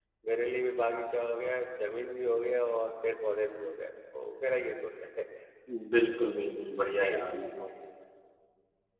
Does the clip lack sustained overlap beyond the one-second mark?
Yes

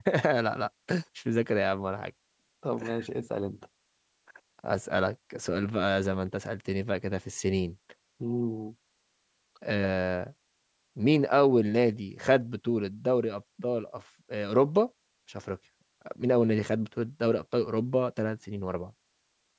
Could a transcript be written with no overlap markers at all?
Yes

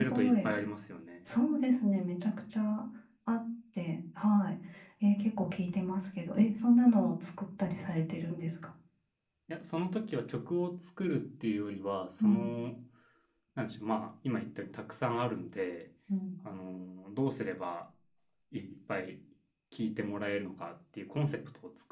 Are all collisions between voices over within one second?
Yes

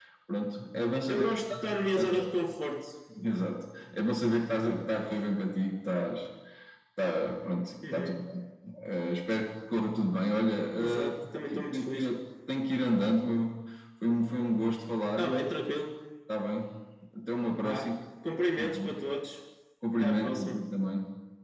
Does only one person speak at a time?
No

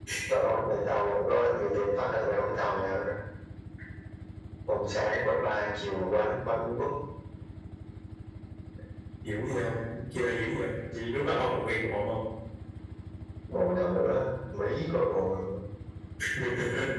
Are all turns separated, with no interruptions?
Yes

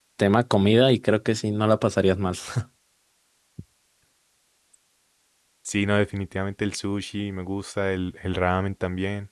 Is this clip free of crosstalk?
Yes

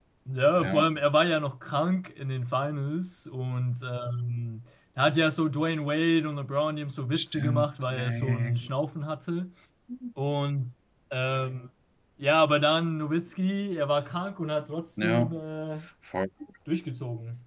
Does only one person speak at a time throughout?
No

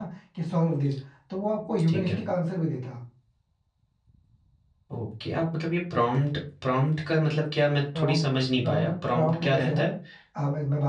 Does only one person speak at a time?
No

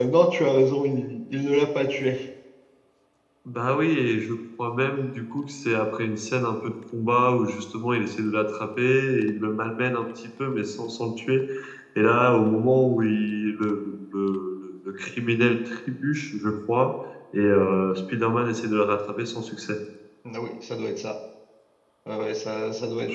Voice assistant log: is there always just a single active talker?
Yes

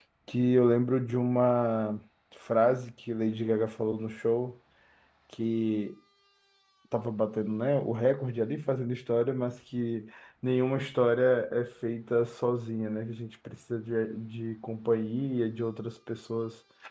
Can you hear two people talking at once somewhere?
No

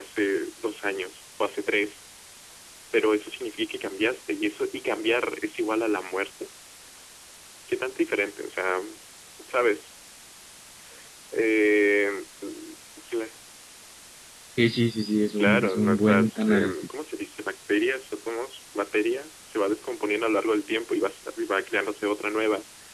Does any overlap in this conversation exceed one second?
Yes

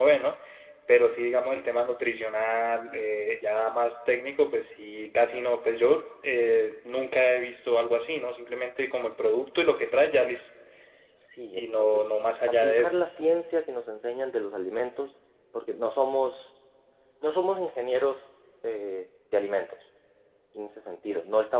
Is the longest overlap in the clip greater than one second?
Yes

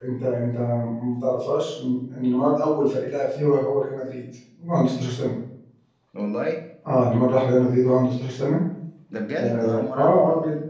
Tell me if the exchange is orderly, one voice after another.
No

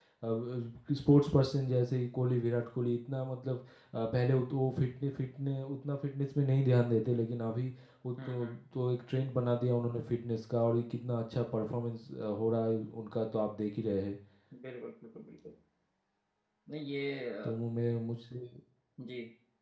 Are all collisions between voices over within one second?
Yes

